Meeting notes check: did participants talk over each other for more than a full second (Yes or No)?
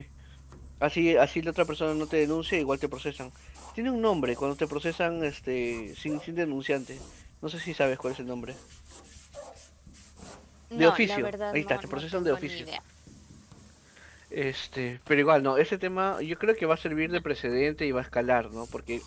Yes